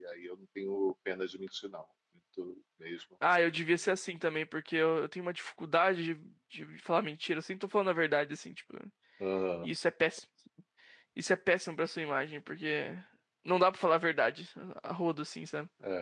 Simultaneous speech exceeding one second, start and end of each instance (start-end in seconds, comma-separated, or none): none